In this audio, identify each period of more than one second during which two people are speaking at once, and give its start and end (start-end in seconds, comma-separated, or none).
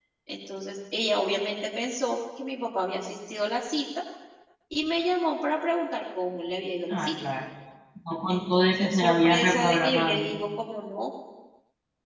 8.3-10.3